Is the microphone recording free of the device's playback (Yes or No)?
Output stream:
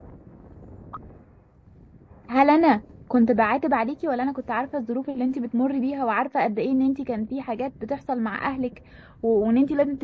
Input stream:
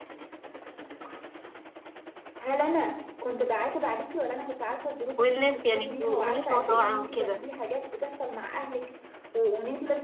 No